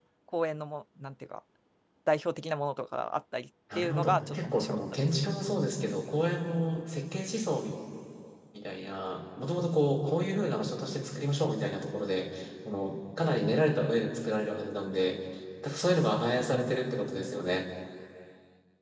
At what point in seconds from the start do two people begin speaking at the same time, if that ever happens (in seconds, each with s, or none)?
3.7 s